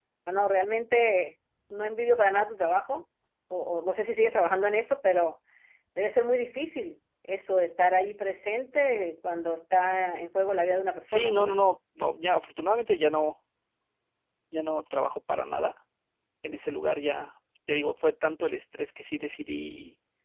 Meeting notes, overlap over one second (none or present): none